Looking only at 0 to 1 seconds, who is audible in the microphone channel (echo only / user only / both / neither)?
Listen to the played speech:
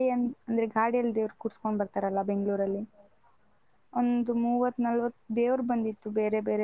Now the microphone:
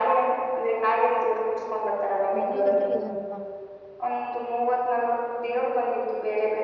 echo only